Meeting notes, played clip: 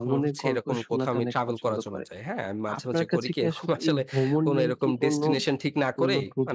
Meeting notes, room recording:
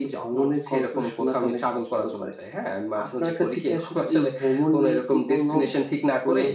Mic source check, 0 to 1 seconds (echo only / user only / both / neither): echo only